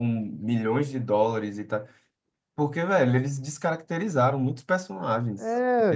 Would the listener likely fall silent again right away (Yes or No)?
No